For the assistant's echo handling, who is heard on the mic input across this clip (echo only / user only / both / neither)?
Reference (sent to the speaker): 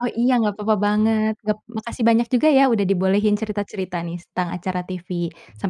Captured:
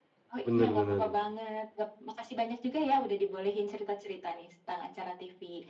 both